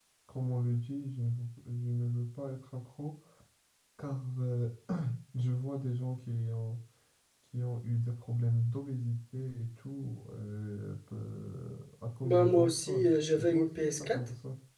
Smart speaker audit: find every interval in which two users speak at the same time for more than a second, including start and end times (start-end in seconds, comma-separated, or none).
12.2-14.2